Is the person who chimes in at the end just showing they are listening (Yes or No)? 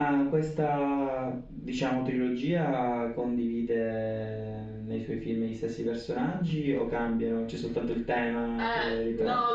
No